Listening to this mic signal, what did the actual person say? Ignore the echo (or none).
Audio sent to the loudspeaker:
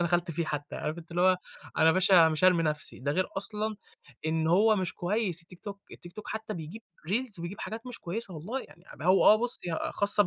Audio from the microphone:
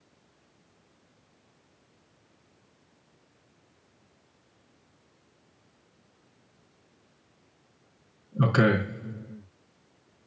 أوكي.